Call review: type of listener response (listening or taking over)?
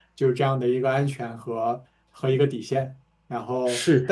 listening